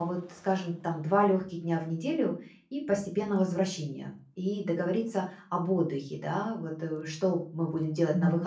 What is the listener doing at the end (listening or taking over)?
listening